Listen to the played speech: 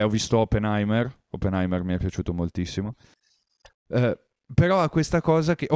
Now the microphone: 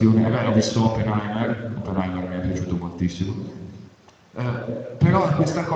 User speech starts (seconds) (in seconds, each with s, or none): none